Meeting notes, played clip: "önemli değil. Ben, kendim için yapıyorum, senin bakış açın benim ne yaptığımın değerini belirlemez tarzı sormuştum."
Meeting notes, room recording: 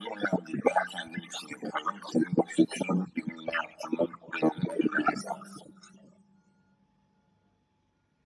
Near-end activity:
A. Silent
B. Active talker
B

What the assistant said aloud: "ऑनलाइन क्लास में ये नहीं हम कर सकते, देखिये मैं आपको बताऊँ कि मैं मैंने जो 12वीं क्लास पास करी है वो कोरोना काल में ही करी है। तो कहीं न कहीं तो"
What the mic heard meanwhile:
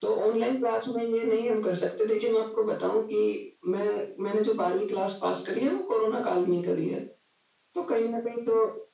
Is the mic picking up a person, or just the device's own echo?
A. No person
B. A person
A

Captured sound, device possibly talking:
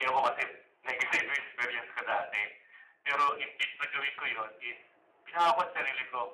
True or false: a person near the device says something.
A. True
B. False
B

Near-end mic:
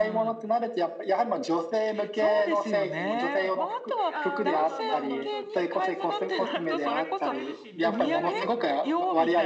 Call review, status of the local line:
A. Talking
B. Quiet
A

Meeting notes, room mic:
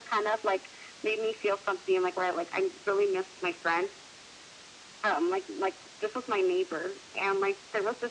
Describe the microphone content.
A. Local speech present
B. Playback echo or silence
B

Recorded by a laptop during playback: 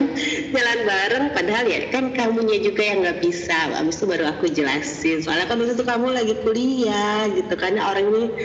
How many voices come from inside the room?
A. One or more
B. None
B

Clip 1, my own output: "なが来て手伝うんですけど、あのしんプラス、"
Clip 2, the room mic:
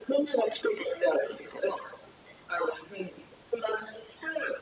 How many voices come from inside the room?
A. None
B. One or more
A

